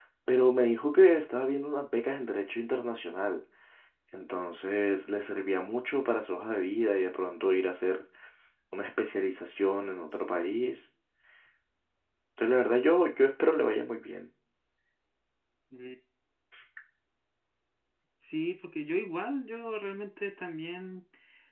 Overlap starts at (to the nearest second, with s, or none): none